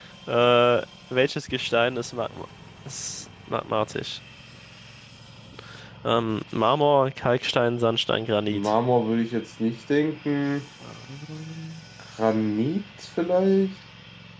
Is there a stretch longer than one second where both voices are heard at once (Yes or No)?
No